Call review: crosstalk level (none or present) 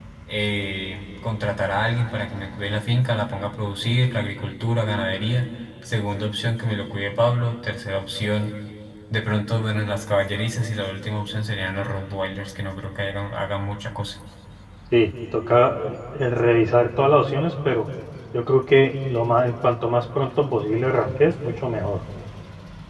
none